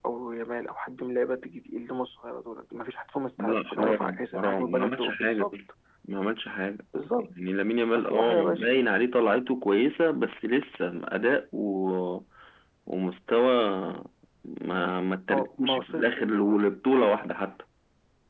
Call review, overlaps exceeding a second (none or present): present